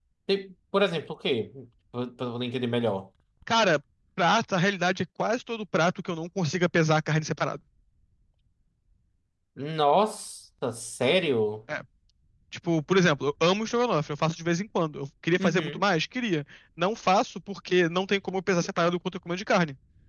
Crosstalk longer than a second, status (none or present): none